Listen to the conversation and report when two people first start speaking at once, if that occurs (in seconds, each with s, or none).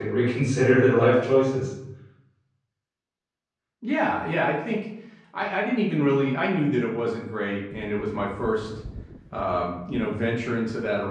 none